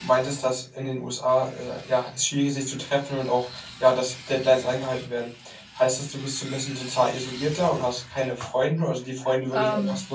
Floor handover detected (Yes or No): No